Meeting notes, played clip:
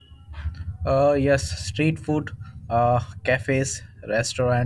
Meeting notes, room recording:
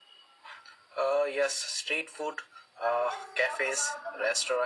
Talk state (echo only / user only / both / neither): both